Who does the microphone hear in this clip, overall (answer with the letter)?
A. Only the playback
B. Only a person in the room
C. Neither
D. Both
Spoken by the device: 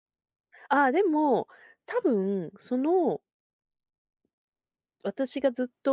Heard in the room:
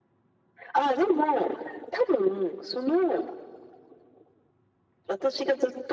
A